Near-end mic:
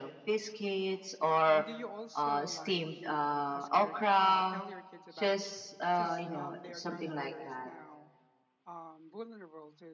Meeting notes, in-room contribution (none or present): present